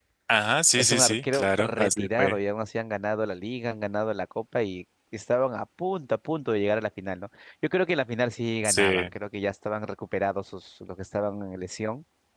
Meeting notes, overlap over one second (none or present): present